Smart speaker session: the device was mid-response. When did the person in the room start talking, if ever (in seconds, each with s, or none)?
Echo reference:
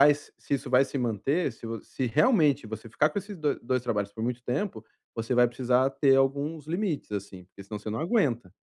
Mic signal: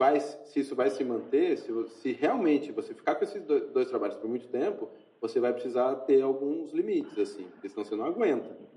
none